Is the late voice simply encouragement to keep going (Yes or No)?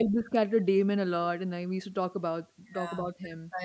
No